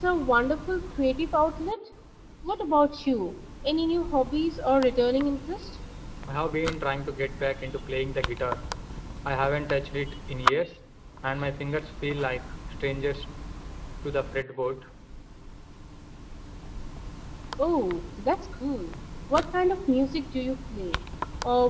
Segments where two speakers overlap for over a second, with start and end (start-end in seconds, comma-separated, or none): none